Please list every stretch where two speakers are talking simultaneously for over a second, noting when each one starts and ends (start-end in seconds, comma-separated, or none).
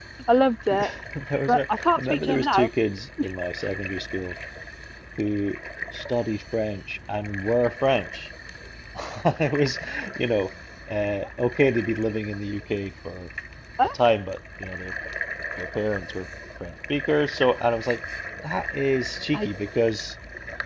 1.5-2.7